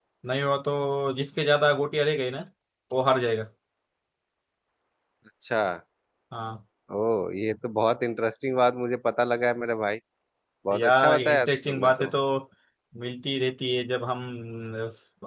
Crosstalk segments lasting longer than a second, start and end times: 10.8-12.1

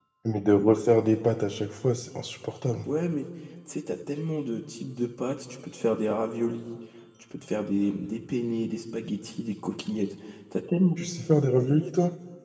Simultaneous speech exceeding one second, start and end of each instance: none

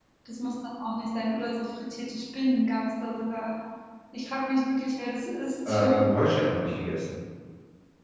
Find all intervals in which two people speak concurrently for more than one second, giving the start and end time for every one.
none

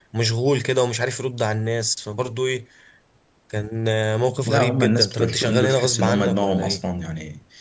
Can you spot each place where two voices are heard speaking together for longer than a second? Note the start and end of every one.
4.5-6.8

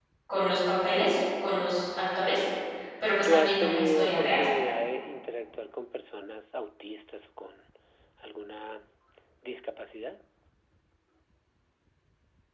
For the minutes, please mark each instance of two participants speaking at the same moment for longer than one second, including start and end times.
3.2-4.5

